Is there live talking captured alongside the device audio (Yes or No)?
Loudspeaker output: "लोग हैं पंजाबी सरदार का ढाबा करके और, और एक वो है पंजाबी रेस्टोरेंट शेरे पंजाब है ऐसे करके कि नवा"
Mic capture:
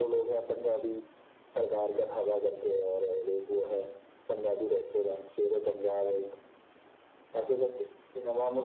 No